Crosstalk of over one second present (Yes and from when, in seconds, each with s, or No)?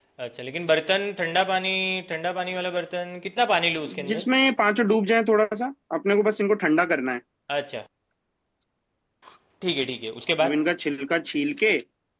No